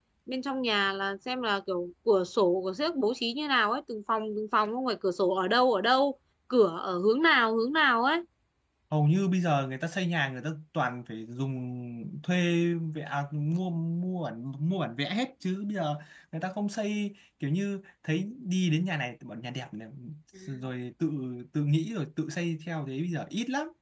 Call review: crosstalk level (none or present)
none